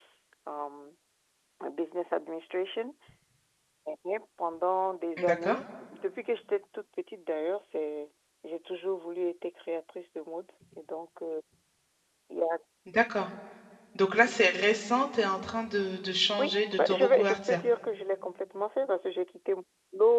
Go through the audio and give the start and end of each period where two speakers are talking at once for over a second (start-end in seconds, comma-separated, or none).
16.4-17.6